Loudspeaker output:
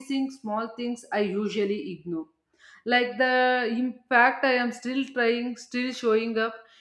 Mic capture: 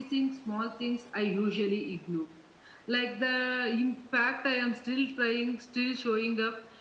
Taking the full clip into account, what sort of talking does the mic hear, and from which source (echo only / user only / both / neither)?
echo only